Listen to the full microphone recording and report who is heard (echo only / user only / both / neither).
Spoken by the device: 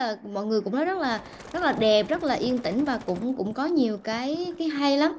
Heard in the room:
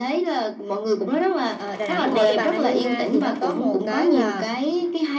both